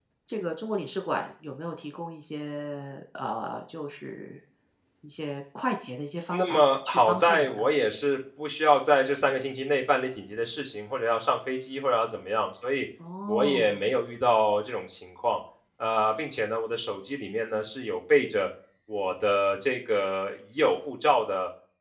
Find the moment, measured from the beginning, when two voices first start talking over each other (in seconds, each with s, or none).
6.3 s